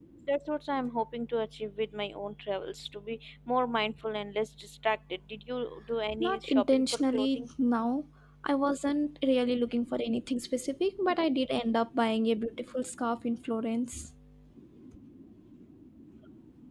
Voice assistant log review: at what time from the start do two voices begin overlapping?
6.1 s

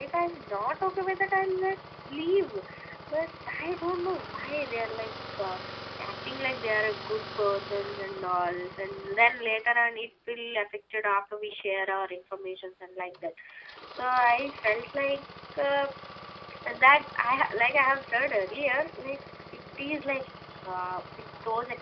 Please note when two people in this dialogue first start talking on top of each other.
none

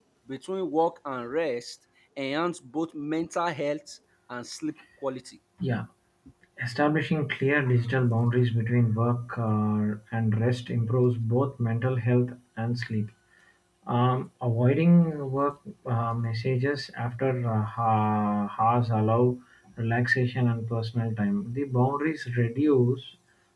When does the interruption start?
none

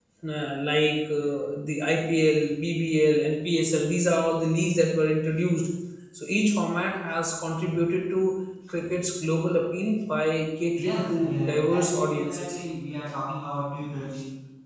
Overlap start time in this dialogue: 10.8 s

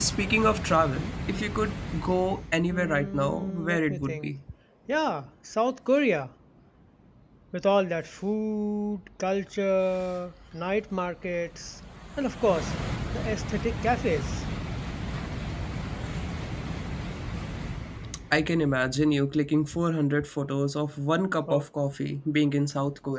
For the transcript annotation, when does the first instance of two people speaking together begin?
2.7 s

